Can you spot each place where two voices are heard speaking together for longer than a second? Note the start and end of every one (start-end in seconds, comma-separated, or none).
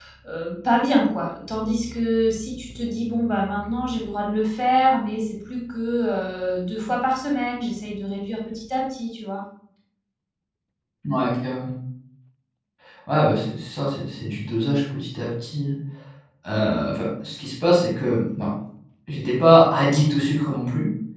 none